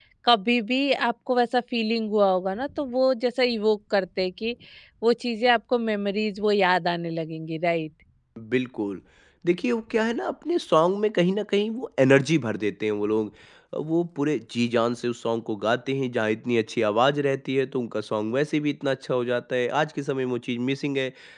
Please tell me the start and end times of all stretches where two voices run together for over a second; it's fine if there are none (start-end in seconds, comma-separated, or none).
none